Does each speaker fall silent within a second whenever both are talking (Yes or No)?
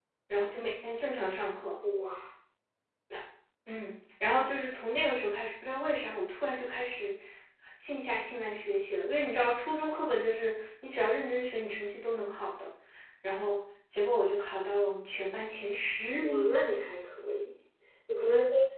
Yes